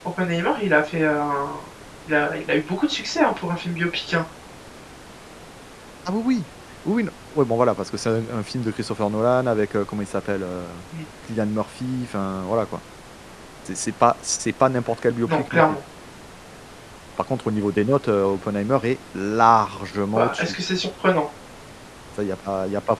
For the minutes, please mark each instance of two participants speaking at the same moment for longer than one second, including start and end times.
none

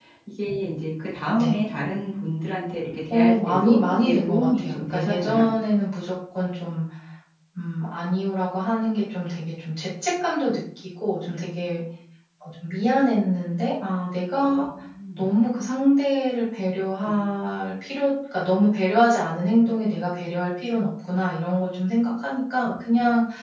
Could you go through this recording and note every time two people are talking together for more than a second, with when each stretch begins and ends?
3.1-5.4

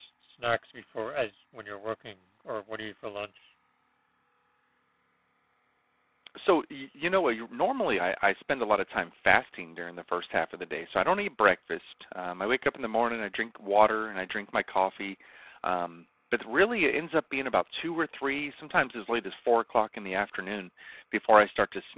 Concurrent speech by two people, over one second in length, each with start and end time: none

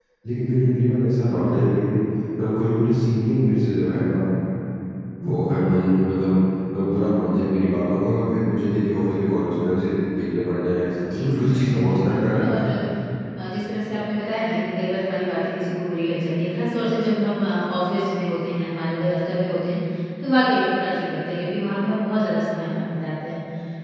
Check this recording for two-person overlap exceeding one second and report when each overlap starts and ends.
11.1-12.6

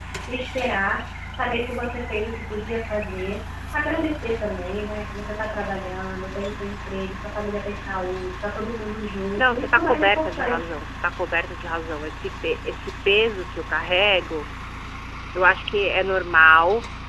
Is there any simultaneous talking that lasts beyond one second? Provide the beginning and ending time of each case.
9.4-10.8

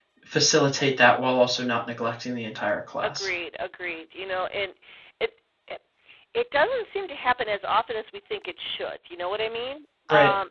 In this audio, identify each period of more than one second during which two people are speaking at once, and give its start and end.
none

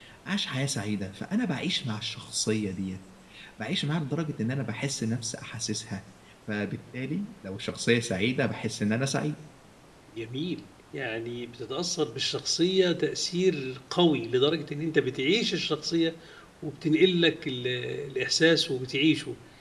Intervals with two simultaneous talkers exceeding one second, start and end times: none

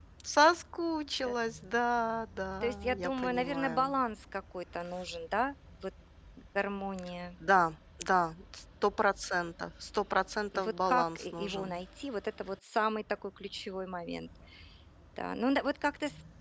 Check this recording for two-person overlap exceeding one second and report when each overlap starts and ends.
2.6-4.0, 10.6-11.8

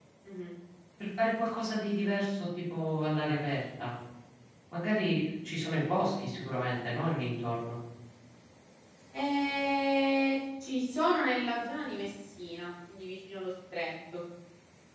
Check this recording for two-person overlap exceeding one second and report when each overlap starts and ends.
none

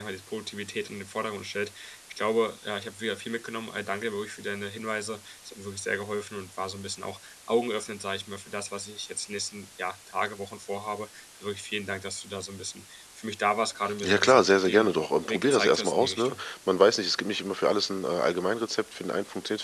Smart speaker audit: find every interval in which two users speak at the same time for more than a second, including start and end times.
14.0-16.4

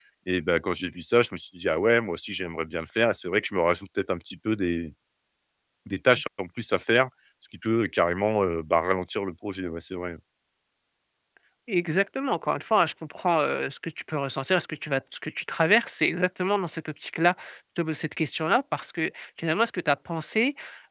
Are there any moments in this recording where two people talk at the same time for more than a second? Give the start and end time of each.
none

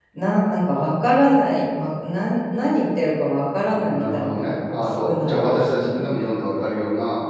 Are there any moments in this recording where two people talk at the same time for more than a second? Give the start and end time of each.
3.6-6.1

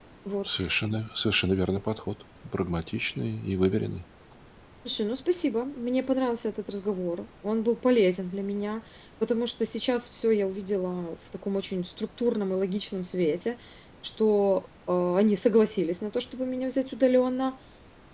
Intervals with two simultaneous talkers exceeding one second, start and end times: none

